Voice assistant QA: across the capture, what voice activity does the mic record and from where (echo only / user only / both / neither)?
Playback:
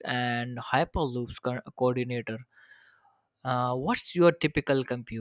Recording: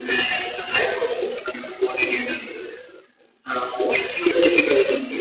echo only